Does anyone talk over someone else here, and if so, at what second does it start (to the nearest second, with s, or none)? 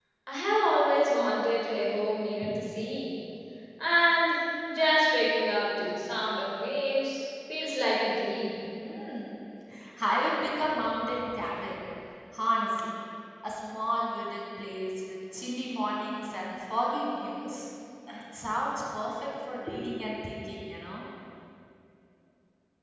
none